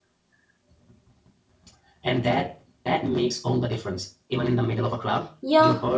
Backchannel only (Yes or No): No